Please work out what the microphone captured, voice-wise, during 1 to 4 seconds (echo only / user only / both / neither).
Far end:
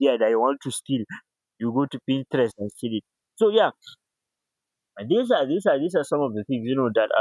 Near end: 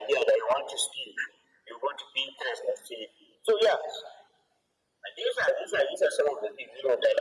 echo only